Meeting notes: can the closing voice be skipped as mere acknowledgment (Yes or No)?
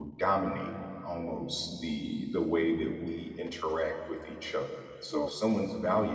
Yes